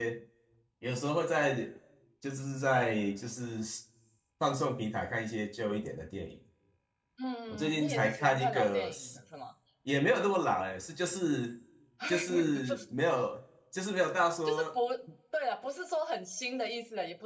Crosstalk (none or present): present